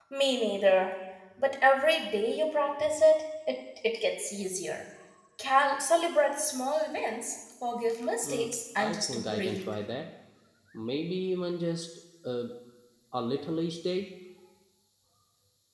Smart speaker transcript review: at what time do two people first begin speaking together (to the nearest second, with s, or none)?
8 s